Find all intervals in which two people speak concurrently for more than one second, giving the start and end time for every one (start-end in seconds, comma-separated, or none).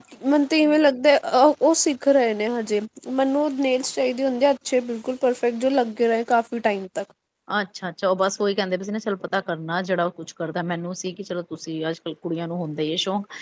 none